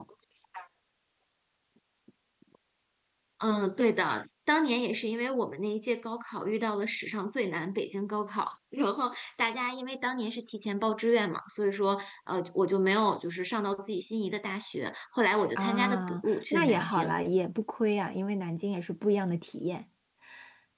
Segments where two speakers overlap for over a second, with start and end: 15.6-17.2

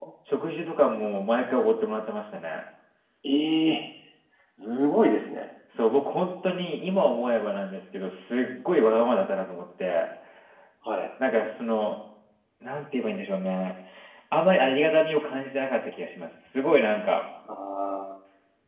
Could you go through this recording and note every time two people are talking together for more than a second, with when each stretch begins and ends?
none

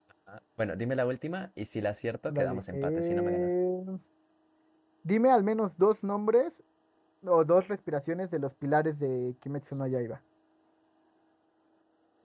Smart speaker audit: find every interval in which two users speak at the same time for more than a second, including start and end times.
2.3-3.5

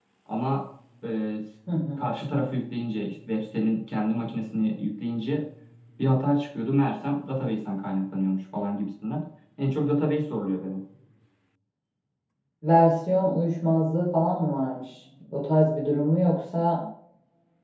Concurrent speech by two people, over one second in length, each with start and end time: none

